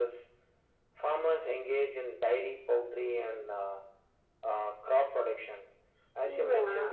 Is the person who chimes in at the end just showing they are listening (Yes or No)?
Yes